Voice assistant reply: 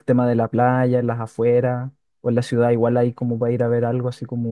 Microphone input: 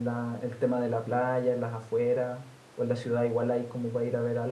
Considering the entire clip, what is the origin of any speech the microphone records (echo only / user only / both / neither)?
echo only